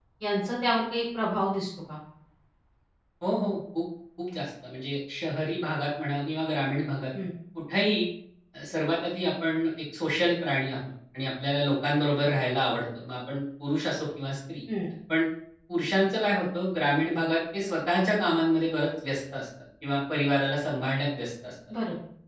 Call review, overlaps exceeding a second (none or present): none